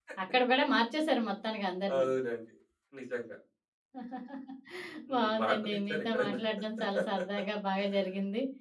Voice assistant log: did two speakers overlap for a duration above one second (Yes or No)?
Yes